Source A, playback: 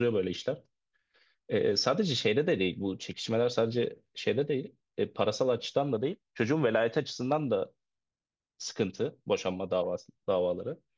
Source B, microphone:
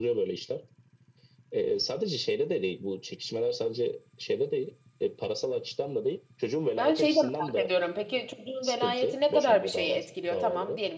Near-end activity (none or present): present